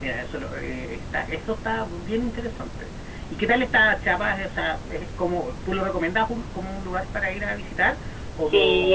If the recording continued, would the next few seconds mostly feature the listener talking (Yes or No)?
Yes